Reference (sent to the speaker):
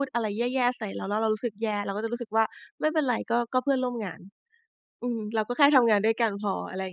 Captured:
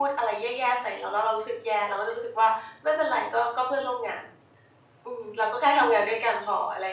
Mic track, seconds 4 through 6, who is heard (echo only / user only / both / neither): echo only